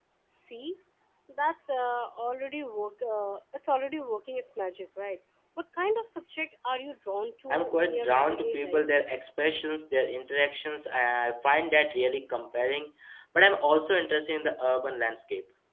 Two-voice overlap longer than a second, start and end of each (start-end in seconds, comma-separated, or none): 7.5-8.9